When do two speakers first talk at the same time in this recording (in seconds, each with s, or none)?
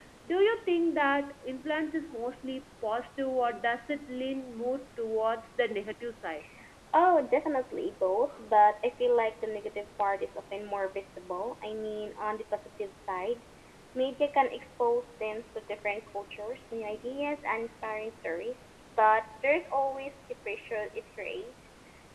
none